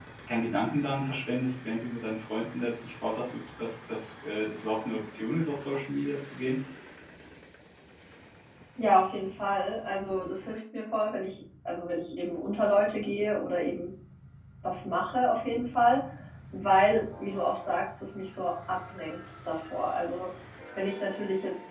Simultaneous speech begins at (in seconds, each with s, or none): none